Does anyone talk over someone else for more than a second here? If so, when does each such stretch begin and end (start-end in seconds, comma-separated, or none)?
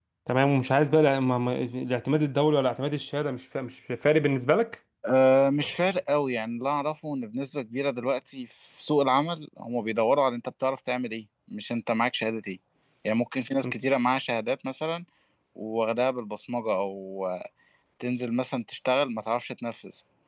none